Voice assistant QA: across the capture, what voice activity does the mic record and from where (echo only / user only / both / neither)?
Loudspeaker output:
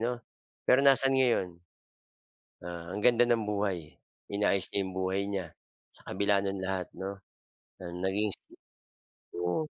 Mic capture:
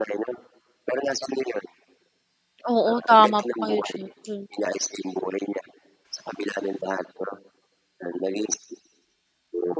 both